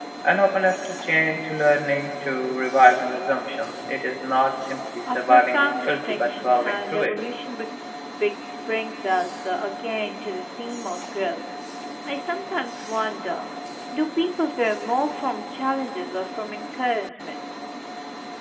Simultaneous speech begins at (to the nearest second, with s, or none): 5 s